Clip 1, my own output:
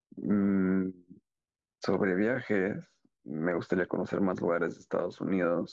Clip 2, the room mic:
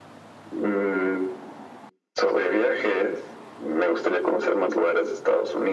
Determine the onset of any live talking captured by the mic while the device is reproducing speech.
none

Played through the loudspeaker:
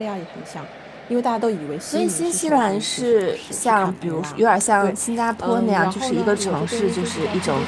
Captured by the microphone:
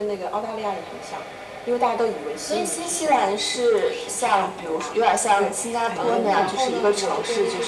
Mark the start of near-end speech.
5.9 s

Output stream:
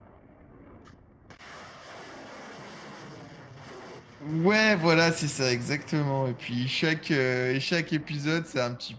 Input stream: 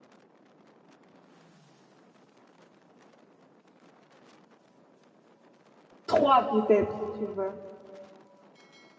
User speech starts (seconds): 6.0 s

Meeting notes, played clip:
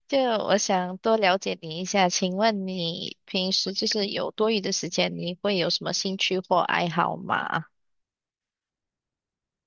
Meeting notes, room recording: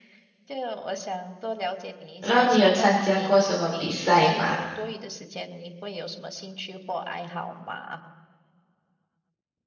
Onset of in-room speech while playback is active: 2.2 s

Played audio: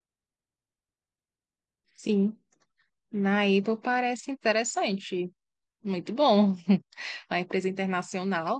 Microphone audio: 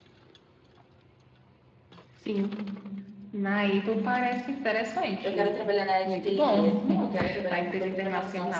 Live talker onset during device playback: 5.2 s

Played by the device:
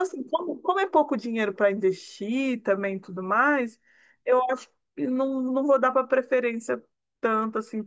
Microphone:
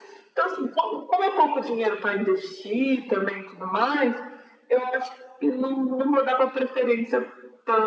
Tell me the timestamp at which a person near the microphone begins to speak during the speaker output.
none

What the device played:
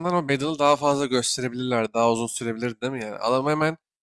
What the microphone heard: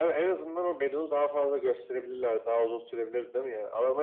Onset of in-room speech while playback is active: none

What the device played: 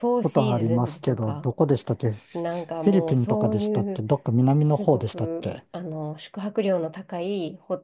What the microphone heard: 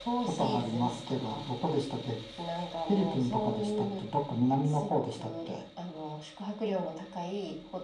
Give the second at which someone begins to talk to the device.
none

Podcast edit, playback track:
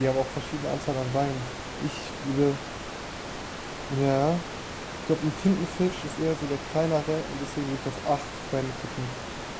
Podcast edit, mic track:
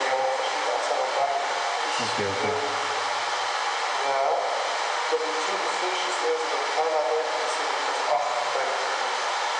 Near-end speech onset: 2.0 s

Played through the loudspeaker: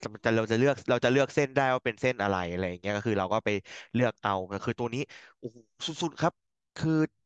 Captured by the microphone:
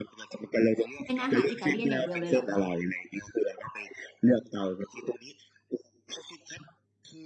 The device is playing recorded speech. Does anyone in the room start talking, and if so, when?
1.0 s

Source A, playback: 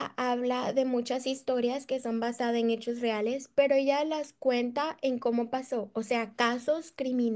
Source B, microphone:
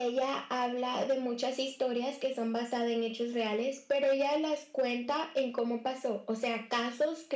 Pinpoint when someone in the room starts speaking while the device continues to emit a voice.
none

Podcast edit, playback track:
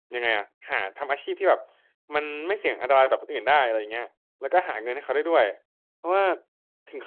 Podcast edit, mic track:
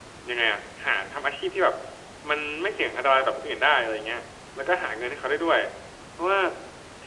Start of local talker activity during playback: none

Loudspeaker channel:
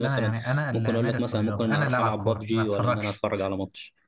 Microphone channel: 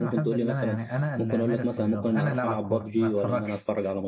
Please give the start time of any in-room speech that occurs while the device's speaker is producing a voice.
none

